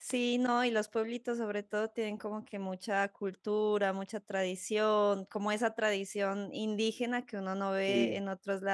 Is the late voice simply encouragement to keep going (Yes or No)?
Yes